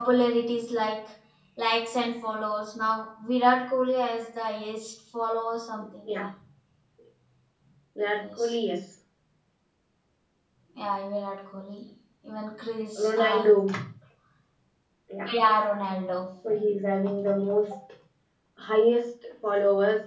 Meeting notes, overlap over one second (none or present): none